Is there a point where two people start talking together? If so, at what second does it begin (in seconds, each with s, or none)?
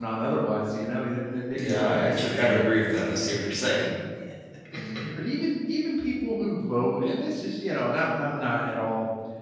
1.5 s